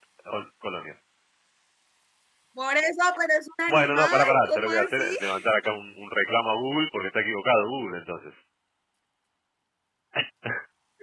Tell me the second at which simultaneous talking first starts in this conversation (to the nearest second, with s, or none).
4 s